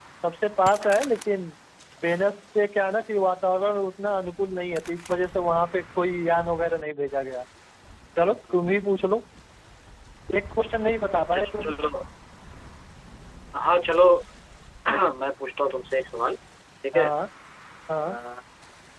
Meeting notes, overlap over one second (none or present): none